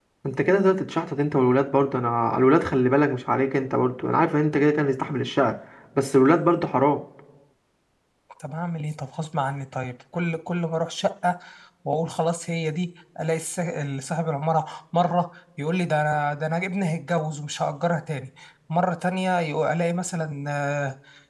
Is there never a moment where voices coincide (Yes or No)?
Yes